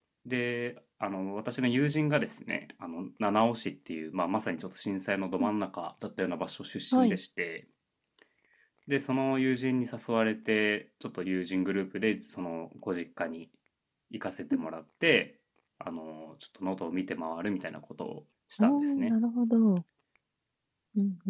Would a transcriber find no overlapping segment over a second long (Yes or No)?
Yes